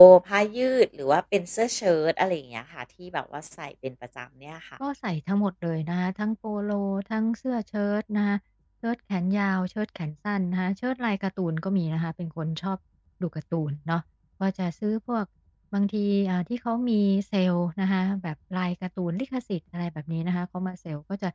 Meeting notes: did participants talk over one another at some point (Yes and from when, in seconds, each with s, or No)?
No